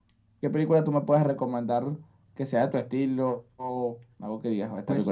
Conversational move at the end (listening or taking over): taking over